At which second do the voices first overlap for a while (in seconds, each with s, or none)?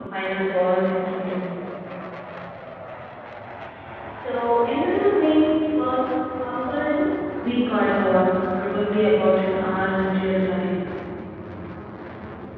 none